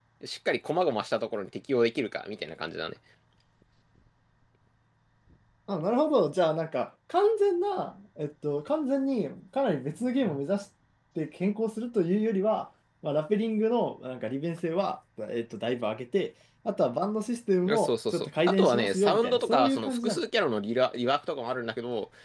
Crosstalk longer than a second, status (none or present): present